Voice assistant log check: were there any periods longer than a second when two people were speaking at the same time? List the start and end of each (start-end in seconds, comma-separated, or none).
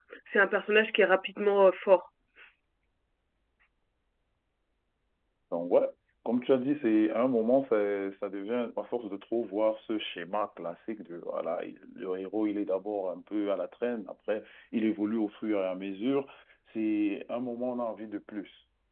none